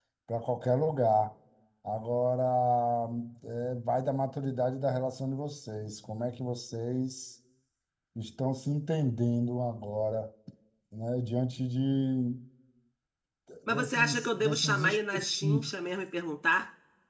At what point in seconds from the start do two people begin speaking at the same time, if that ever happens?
13.7 s

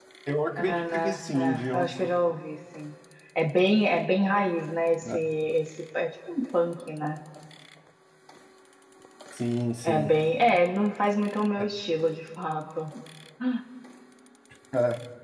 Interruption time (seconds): 0.7 s

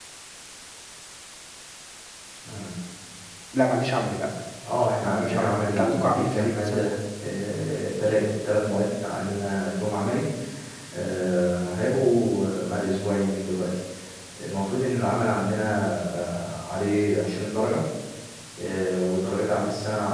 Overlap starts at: 5.0 s

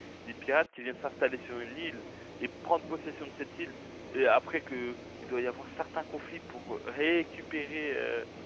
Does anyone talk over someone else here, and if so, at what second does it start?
none

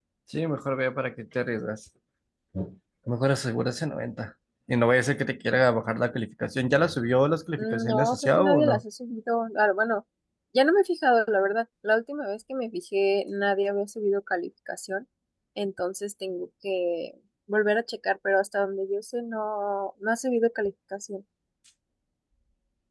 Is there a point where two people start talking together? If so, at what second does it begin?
7.6 s

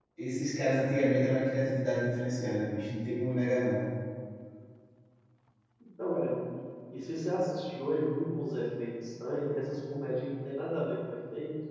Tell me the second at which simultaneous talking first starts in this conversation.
none

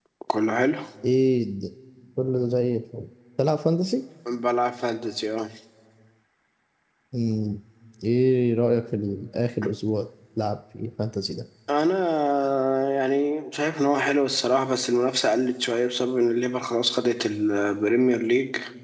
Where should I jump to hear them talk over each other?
none

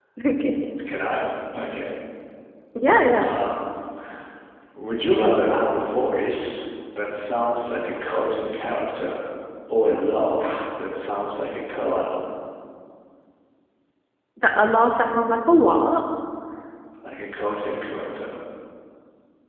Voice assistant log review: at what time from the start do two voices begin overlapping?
none

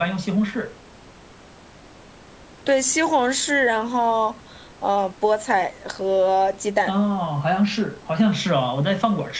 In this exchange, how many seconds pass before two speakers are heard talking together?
none

